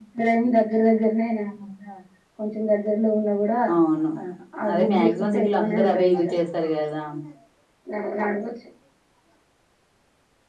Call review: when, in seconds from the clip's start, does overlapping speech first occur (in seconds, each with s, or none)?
4.8 s